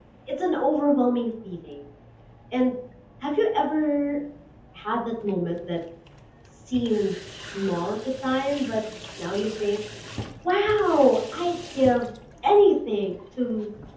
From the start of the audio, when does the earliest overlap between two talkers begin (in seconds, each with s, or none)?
none